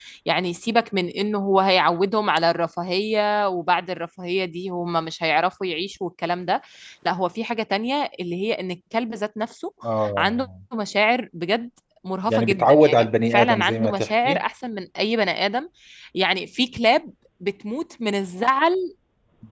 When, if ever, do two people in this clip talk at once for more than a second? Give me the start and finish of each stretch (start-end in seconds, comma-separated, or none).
12.3-14.4